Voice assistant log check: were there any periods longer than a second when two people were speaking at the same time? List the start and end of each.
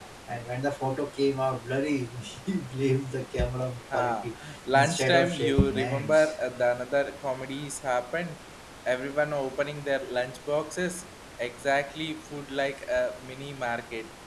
3.9-6.4

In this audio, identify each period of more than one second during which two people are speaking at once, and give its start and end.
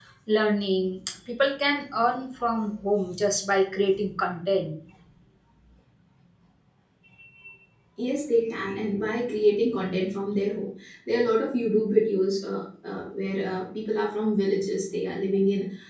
none

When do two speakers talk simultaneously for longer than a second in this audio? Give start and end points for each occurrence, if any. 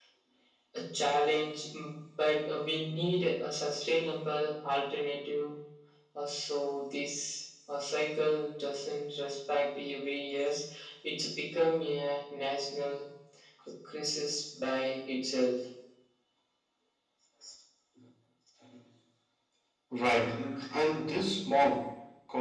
none

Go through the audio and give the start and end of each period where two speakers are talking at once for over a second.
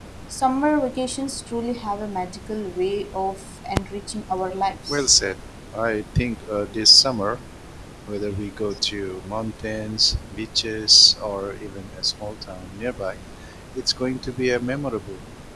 none

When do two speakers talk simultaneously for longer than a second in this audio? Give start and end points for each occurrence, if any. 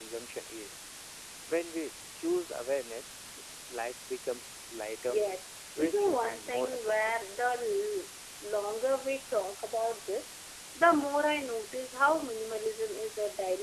5.8-7.1

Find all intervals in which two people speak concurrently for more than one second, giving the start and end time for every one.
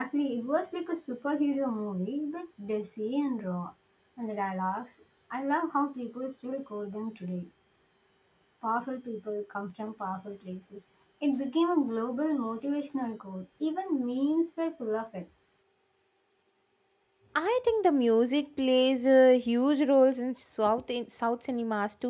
none

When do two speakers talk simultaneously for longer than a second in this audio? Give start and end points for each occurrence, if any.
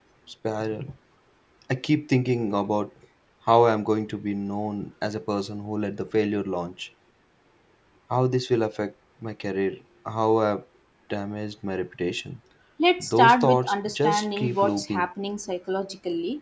13.0-15.0

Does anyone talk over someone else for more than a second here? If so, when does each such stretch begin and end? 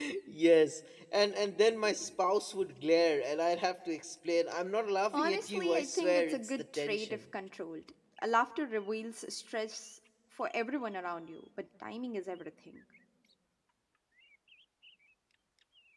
5.1-7.2

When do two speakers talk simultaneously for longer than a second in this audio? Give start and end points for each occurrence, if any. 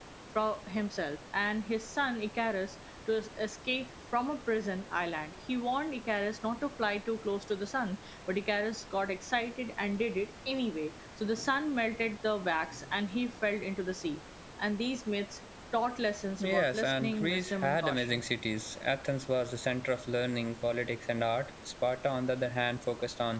16.4-18.2

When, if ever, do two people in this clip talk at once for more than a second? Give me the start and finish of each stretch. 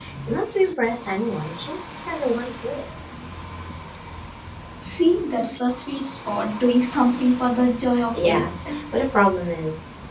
none

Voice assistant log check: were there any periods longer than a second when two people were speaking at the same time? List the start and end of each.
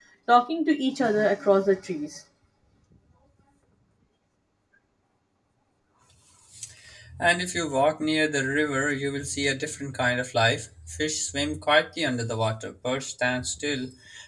none

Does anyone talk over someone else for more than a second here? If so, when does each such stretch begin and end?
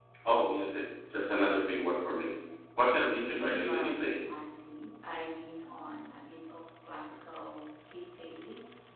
2.9-4.3

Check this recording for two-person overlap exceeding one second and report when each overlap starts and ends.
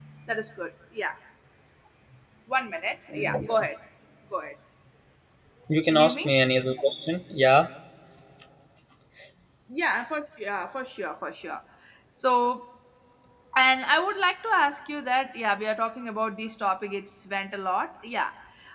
none

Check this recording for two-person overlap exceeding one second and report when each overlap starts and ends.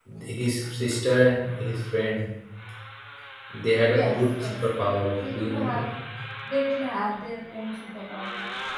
4.0-5.8

